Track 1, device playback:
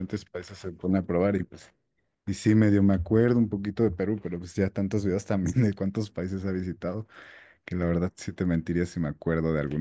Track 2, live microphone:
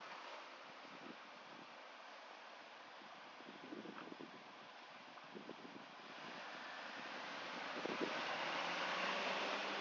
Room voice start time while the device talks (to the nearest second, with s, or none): none